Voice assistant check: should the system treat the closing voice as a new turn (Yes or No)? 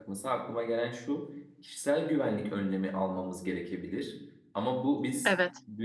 No